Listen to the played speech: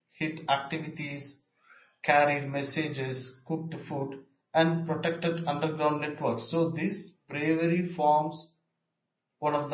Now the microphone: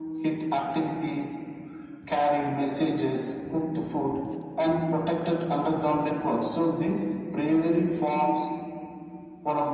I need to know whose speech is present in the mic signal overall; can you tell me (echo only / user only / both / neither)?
echo only